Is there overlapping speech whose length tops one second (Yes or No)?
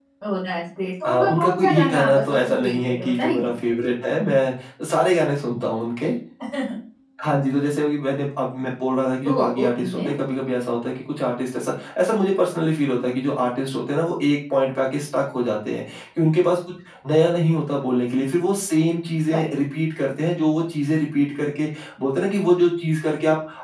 Yes